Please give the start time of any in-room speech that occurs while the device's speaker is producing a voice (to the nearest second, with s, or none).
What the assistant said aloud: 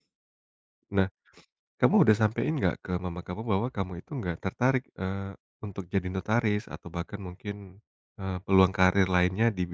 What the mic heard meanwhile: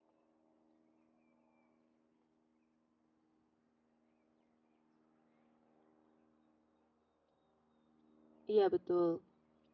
8 s